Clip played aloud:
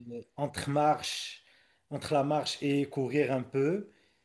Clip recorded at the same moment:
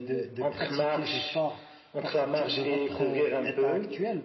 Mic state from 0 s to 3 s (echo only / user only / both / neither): both